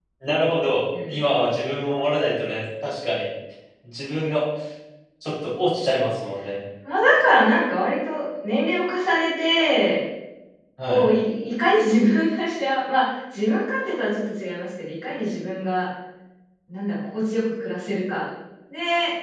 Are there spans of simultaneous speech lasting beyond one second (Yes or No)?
No